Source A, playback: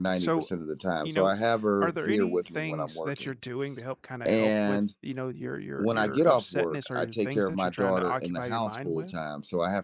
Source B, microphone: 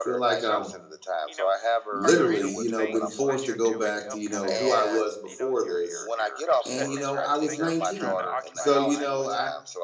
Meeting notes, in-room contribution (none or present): present